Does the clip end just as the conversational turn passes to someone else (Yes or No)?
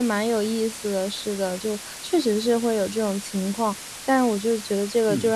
No